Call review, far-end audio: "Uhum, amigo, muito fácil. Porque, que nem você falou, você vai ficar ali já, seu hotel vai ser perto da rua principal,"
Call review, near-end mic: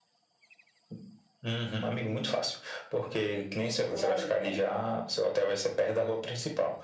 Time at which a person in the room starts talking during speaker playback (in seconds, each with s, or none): 3.9 s